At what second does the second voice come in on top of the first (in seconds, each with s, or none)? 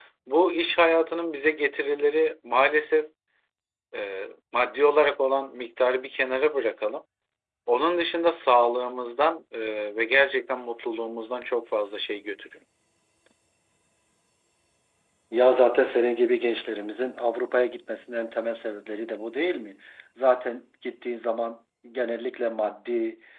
none